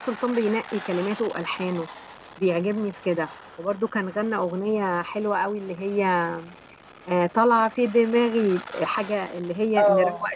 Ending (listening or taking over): taking over